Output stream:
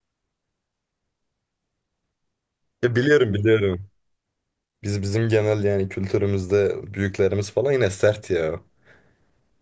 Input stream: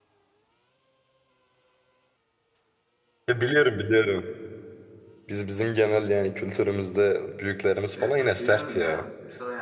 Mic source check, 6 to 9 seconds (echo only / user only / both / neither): both